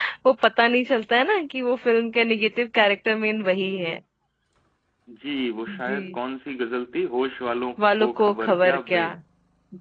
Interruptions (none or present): present